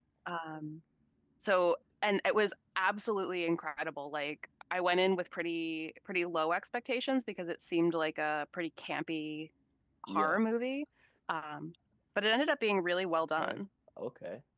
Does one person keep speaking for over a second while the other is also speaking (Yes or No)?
No